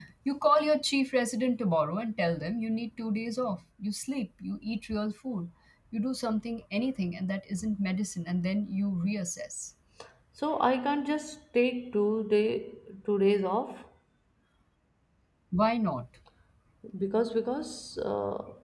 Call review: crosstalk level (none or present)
none